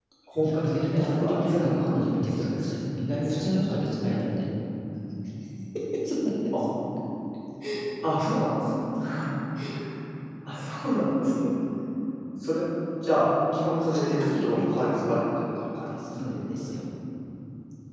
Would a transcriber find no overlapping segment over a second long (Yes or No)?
No